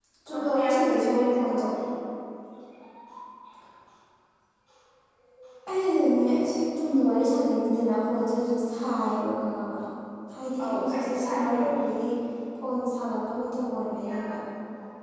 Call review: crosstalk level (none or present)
present